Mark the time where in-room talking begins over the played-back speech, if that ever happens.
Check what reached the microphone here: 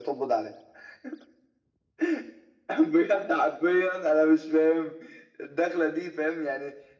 none

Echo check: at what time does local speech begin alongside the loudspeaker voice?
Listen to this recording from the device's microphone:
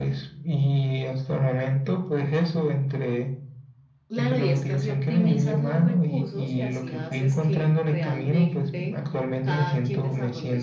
4.1 s

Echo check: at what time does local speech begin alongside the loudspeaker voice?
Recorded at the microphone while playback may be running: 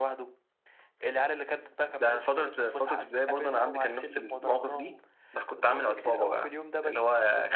none

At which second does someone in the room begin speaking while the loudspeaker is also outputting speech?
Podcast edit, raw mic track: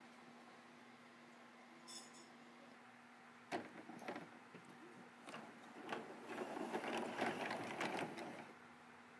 none

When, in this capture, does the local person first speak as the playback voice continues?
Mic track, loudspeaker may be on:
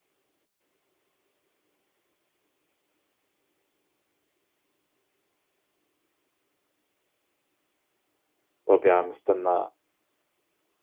8.7 s

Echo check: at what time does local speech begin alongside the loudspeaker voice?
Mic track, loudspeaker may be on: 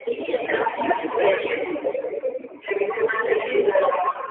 2.8 s

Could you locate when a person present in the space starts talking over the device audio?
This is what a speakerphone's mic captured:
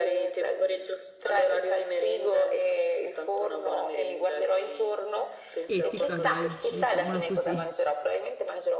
5.6 s

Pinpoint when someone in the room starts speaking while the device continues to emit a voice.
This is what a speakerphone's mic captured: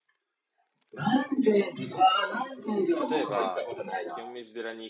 3.0 s

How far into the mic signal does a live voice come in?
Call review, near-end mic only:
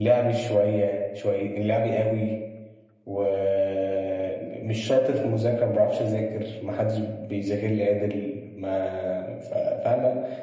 none

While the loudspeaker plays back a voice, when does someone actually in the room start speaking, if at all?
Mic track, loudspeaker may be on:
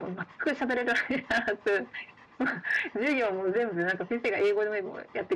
none

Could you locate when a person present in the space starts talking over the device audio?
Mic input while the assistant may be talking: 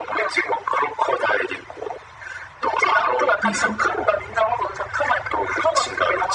3.4 s

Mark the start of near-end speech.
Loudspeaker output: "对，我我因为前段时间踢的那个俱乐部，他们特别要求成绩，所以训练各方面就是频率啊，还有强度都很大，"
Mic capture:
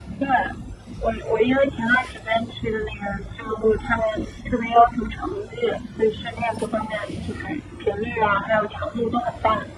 none

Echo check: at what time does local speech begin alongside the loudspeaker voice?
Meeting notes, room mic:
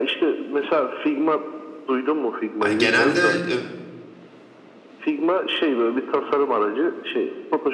2.6 s

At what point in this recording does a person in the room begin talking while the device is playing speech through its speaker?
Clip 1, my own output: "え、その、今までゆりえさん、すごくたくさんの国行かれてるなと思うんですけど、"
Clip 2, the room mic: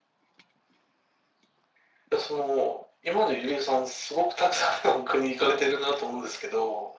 none

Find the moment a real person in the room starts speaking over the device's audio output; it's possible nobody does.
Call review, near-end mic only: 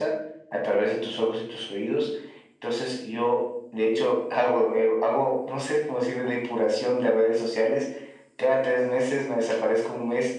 none

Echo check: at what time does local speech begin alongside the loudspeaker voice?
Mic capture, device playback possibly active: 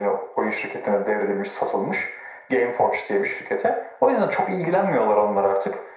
none

